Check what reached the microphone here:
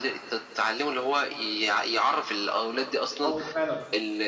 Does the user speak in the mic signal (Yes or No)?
Yes